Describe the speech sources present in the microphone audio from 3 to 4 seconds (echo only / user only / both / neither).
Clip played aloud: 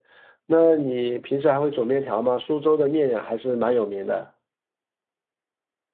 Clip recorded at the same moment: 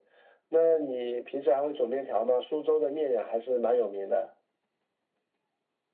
echo only